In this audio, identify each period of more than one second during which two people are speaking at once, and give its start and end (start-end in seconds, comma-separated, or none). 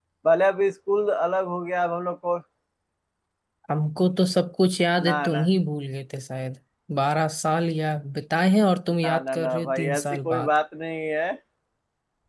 9.0-10.6